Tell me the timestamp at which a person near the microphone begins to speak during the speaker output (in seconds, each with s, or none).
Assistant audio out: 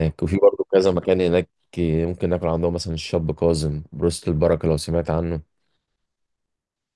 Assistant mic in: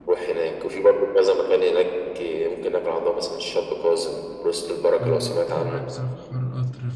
5.0 s